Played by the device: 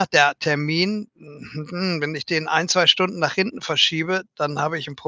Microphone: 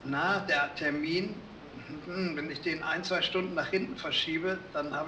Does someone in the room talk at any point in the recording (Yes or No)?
No